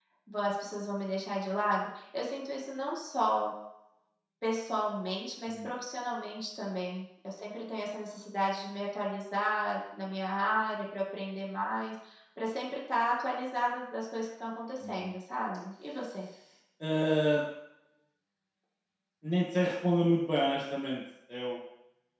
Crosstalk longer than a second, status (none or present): none